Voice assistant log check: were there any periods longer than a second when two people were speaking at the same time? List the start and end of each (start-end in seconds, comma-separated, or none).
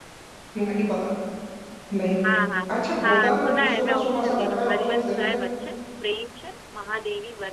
3.0-5.4